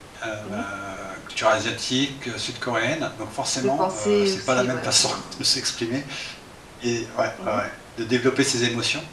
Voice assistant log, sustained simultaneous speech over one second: present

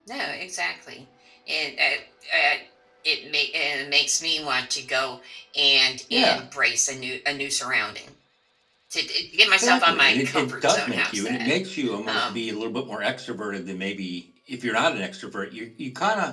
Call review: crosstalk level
present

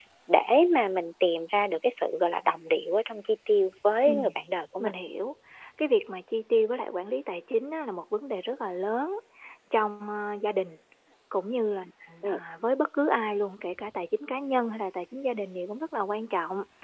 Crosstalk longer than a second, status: none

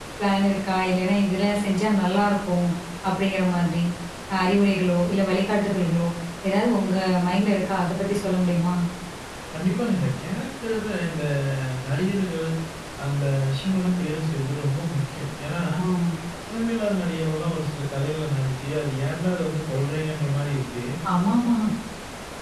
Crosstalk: none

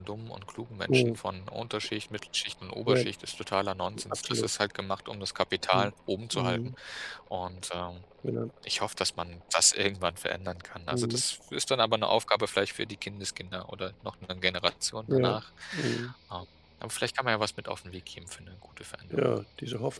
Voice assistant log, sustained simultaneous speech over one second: none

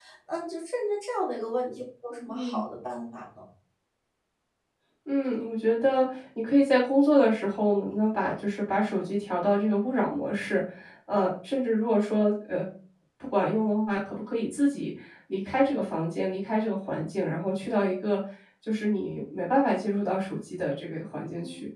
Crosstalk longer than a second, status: none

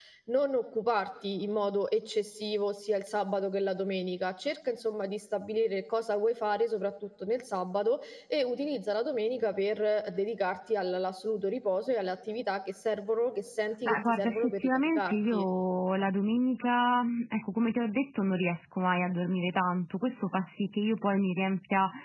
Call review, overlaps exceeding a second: present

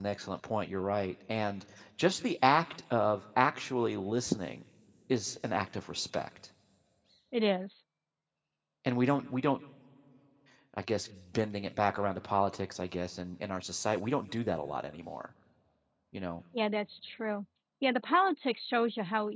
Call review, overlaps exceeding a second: none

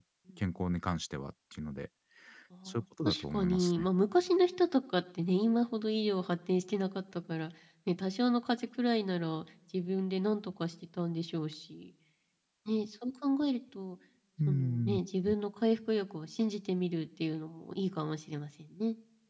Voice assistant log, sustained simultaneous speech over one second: present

